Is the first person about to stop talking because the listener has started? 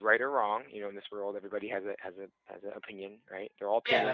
Yes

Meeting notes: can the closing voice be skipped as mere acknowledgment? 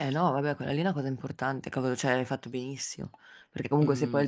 Yes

